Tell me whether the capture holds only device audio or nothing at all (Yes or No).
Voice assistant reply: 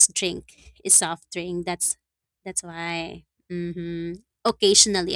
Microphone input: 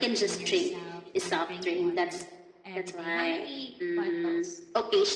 No